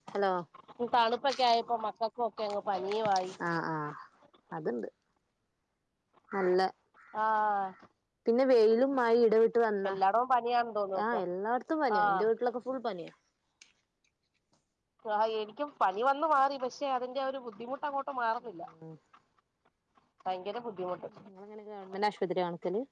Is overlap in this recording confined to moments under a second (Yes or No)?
Yes